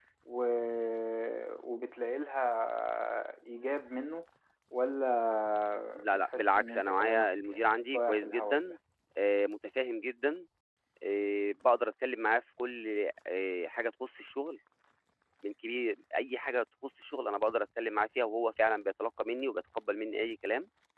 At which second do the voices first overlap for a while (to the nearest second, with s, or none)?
6 s